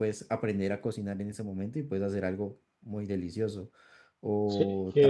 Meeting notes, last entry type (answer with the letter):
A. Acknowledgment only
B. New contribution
B